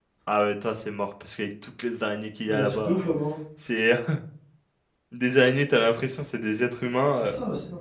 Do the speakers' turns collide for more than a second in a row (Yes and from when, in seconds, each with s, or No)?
No